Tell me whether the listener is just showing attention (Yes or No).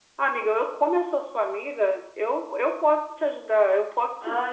No